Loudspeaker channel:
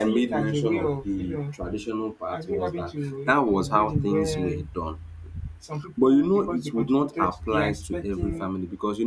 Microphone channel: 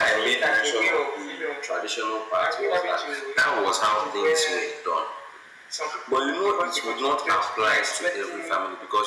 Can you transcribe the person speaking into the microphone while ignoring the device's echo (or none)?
none